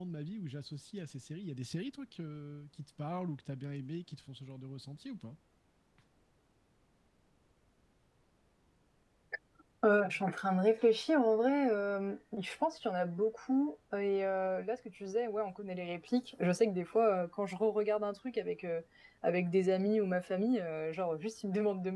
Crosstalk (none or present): none